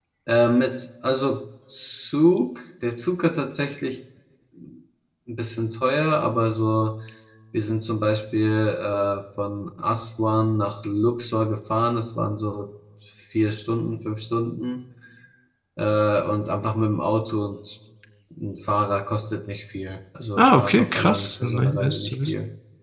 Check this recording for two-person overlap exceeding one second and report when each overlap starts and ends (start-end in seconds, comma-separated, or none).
20.4-22.3